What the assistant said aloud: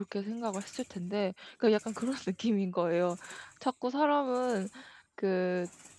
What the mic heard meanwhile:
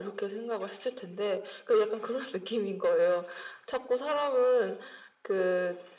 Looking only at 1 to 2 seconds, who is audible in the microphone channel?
echo only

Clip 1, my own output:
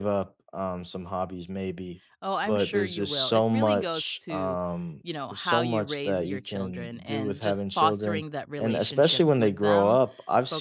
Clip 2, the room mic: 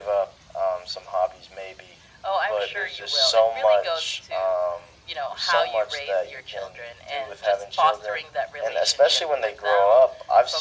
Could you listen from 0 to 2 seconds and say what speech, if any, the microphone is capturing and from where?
echo only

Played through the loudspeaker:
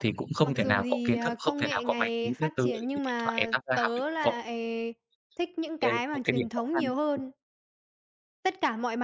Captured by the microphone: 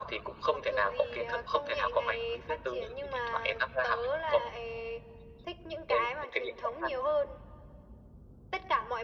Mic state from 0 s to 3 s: echo only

